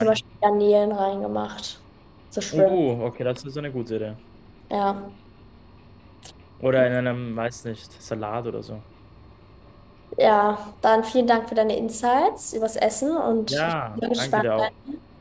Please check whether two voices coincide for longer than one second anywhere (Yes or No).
Yes